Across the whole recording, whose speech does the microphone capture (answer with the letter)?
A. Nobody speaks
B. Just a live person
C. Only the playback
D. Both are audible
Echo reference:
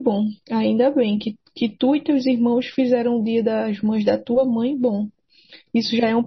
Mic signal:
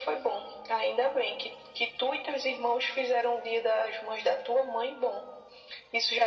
C